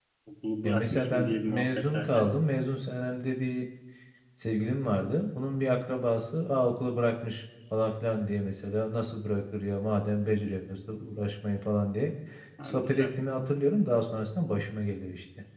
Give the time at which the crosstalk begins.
0.6 s

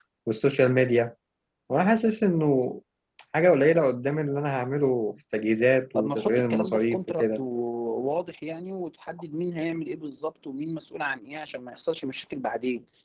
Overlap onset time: 6.0 s

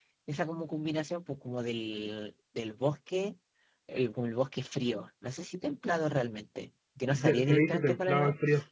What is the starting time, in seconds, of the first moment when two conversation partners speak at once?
7.1 s

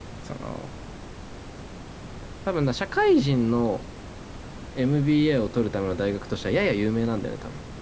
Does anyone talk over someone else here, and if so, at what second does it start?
none

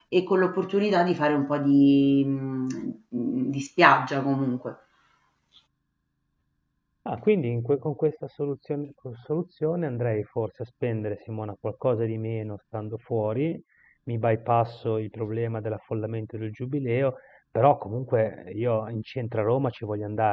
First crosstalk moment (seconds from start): none

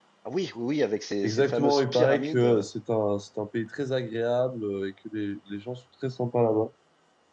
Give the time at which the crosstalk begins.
1.2 s

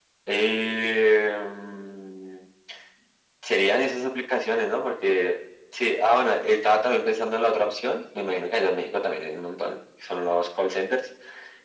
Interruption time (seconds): none

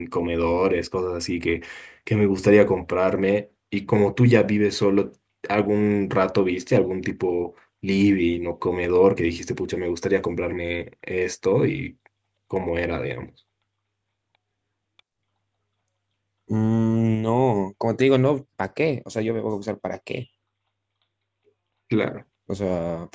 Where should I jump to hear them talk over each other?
none

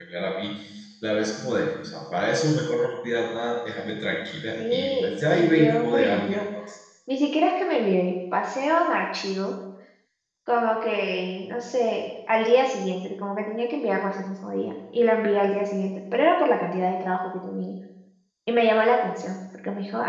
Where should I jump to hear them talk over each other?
4.6 s

